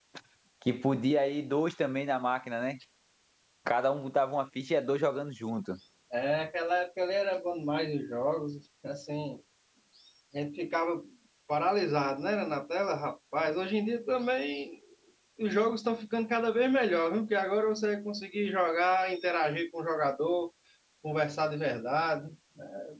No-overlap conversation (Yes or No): Yes